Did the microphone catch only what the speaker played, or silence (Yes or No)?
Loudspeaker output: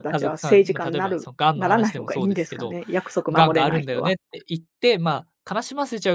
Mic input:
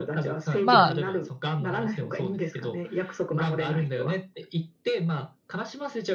No